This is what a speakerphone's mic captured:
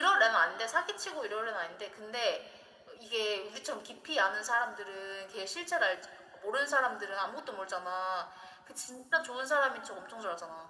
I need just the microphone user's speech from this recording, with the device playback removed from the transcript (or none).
none